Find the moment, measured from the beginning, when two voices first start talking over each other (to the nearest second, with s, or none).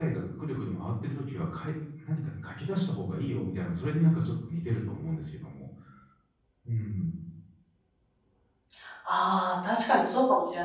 none